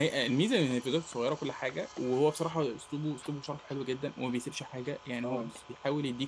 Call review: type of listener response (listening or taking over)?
listening